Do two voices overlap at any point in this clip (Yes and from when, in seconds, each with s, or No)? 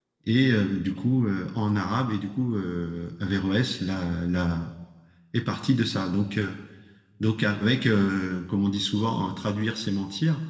No